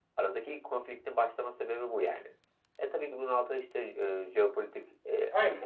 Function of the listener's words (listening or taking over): taking over